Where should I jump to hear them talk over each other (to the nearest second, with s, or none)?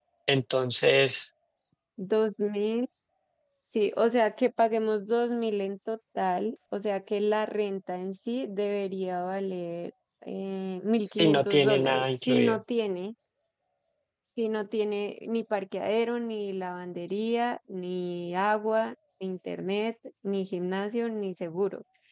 11 s